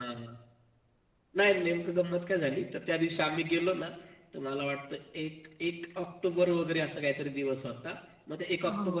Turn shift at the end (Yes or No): No